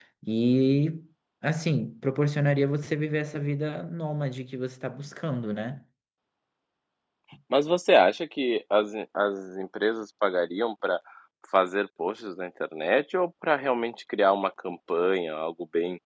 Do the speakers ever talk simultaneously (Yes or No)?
No